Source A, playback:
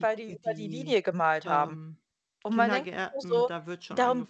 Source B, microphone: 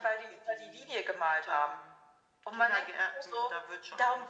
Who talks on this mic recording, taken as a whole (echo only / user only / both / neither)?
echo only